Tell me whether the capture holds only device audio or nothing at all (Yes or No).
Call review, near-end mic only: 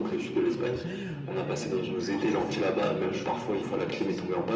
No